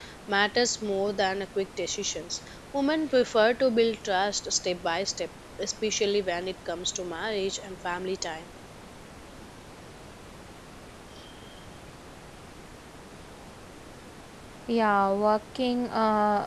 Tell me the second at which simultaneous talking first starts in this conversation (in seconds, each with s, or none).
none